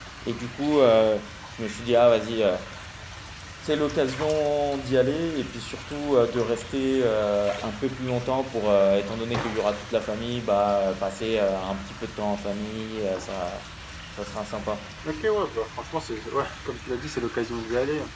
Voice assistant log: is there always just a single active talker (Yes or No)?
Yes